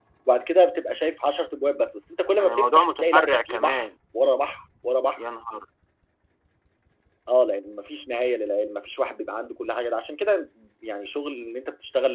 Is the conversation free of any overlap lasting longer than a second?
No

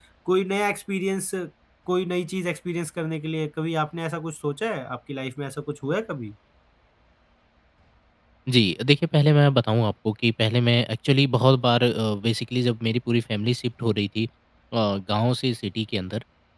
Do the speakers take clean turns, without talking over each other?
Yes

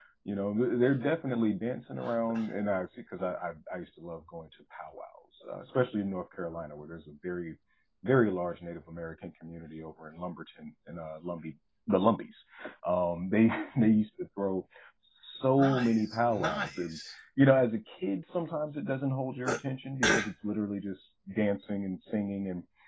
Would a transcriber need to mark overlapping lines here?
Yes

